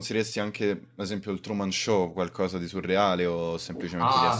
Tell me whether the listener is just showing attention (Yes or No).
No